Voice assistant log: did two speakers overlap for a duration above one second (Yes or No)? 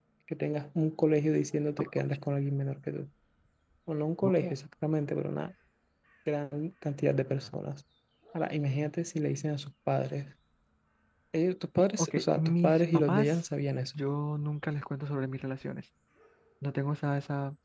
Yes